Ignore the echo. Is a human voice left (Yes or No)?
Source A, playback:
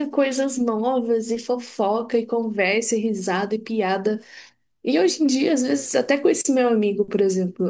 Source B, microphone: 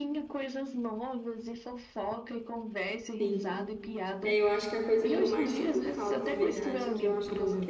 Yes